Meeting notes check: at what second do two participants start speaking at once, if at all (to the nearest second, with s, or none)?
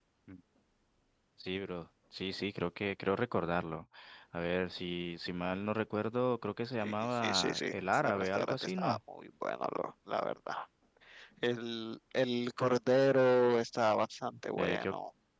7 s